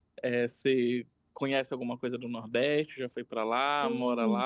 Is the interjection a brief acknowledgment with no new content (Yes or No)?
No